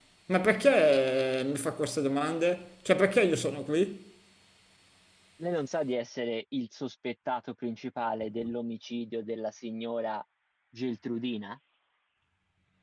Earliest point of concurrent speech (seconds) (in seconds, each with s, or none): none